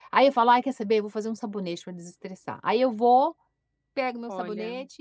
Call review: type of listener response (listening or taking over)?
listening